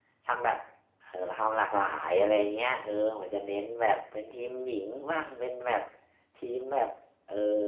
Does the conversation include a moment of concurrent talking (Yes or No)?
No